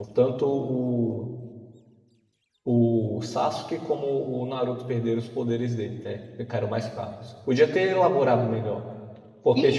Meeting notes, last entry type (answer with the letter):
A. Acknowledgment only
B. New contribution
B